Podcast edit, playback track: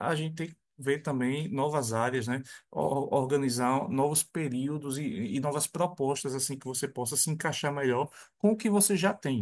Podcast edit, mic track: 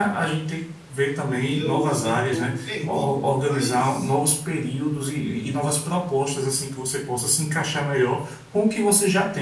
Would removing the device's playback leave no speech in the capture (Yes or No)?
No